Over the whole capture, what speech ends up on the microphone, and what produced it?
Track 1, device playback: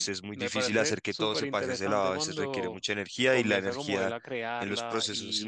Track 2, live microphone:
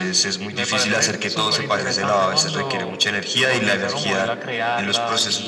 echo only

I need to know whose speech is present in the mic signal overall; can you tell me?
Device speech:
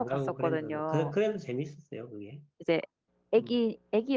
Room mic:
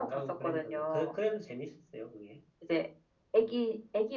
echo only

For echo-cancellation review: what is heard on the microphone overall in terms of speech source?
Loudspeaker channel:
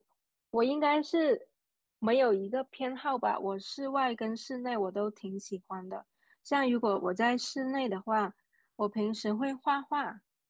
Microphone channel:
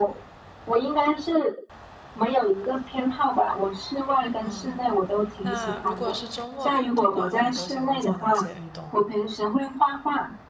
both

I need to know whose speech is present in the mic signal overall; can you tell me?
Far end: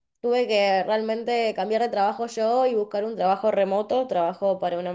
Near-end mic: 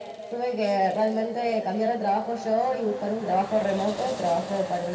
echo only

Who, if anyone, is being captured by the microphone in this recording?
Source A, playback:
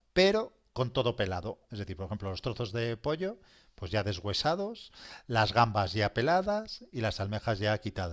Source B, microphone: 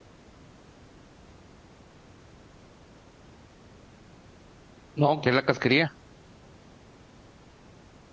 user only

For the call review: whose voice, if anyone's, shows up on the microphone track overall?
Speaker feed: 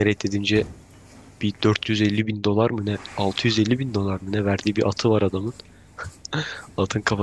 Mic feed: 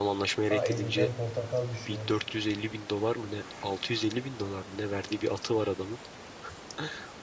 both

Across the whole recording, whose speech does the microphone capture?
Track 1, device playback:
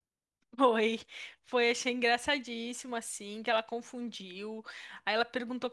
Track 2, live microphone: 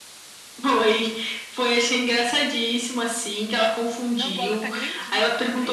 both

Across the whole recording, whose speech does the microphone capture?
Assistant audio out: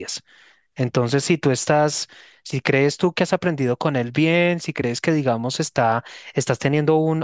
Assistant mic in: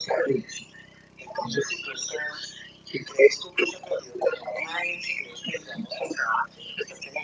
echo only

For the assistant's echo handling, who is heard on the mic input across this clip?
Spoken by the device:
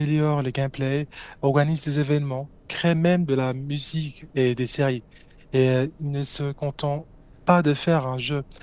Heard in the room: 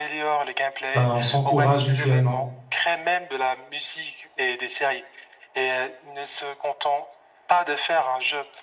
both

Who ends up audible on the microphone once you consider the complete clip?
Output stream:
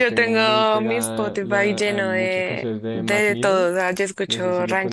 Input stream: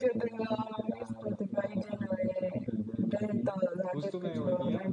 both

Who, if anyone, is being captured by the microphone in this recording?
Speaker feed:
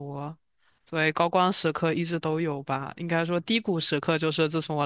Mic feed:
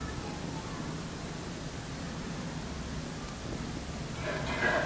neither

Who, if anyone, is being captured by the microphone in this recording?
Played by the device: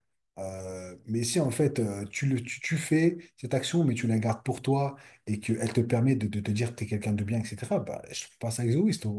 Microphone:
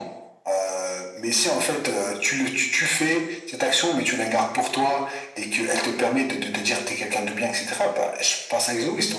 echo only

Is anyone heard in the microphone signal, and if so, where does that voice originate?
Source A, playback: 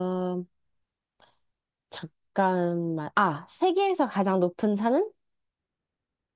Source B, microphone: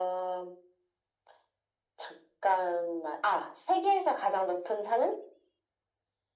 echo only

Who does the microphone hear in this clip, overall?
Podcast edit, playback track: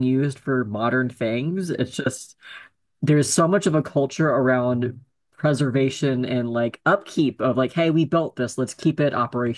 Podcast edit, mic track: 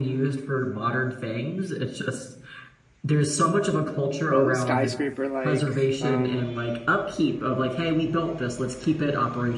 both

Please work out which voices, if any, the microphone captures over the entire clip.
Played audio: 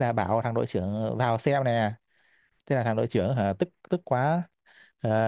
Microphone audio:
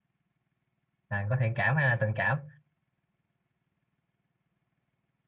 user only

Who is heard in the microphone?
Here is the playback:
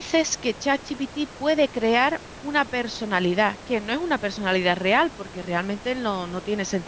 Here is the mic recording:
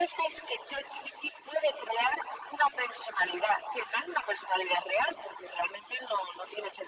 echo only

